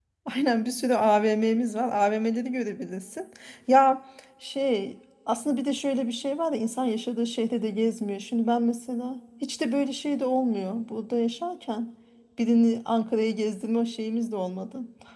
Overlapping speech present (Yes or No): No